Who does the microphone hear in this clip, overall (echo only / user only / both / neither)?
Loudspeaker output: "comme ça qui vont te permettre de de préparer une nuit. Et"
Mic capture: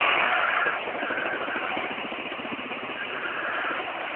neither